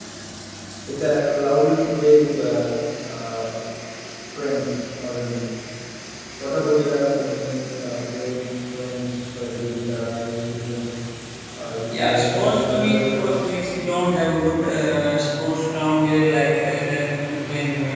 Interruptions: present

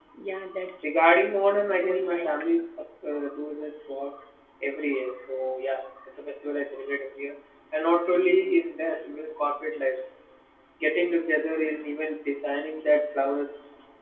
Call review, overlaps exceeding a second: present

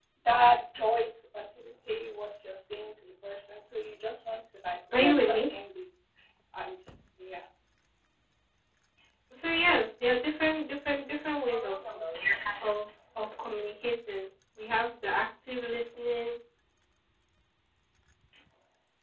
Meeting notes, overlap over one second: none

